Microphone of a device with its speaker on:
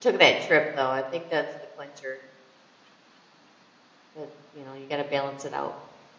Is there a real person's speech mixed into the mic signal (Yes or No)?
Yes